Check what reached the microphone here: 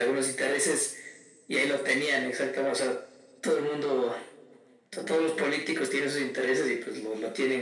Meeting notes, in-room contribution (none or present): none